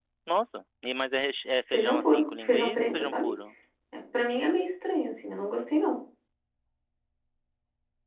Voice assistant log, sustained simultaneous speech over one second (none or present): present